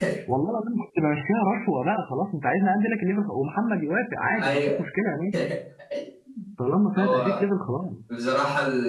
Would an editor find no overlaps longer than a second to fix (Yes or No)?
Yes